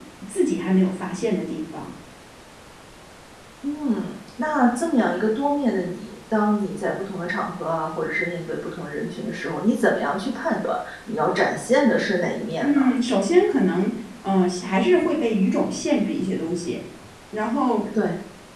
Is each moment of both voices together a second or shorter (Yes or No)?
Yes